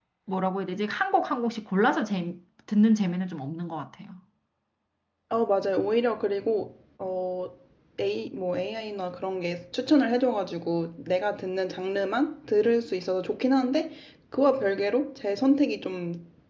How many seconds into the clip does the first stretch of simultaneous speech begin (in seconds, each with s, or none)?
none